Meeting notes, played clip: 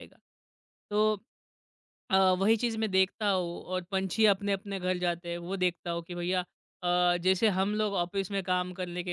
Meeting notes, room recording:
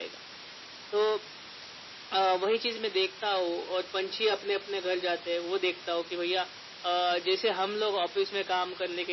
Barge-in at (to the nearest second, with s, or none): none